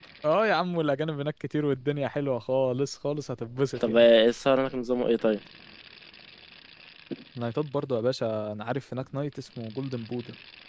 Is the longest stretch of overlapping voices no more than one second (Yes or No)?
Yes